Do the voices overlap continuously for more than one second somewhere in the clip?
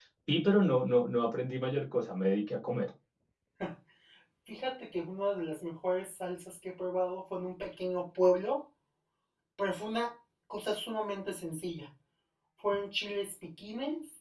No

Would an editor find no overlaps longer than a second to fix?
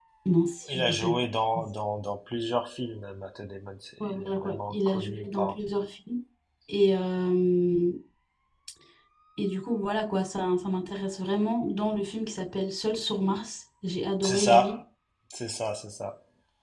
No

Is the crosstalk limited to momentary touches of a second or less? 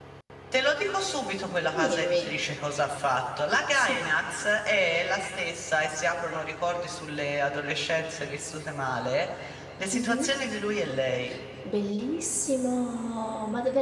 Yes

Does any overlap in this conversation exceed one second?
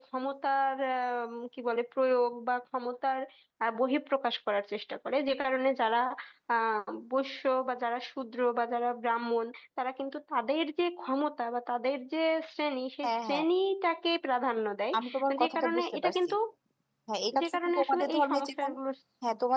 Yes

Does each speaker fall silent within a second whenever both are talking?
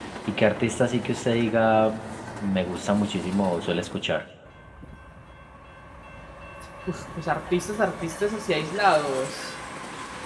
Yes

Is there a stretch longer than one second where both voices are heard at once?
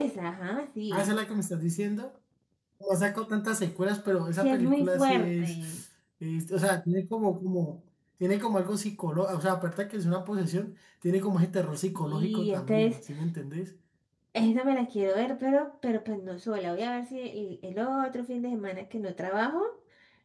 Yes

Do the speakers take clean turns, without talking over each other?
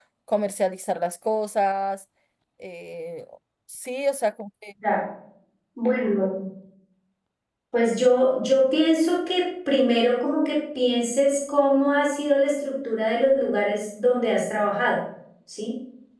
Yes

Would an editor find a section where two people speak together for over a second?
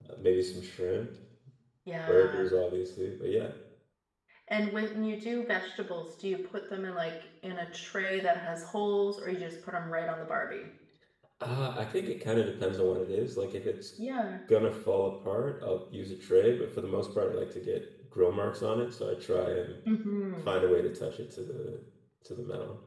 No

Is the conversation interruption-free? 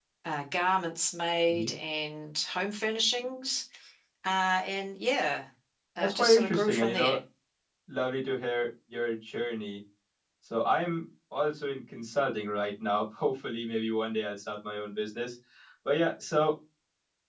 No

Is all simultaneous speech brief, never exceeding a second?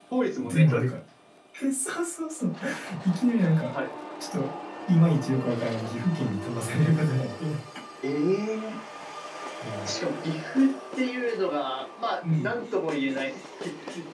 Yes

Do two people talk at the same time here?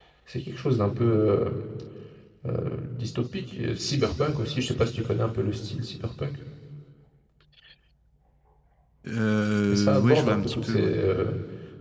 Yes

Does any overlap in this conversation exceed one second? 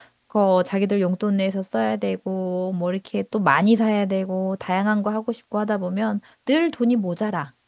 No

